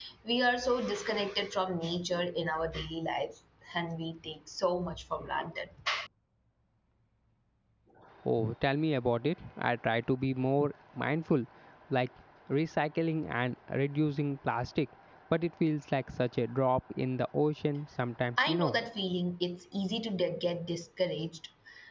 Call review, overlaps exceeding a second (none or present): none